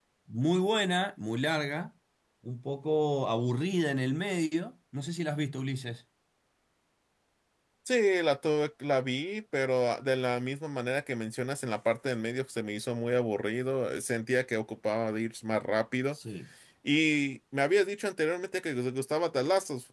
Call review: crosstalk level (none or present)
none